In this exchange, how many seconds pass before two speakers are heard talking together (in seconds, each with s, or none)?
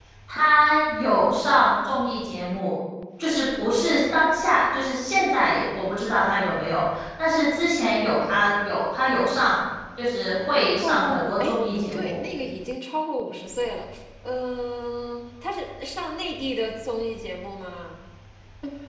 10.6 s